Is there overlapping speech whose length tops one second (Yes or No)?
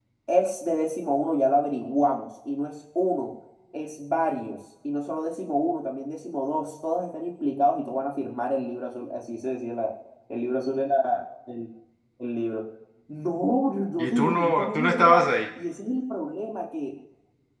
Yes